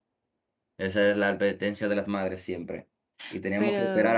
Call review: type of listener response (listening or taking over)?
listening